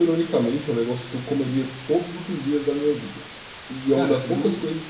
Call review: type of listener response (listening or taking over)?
listening